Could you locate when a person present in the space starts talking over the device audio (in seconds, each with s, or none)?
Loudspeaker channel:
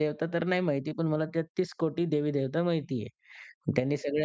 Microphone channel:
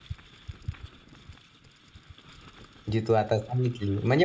2.9 s